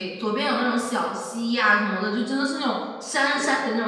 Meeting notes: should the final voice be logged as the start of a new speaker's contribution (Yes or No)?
No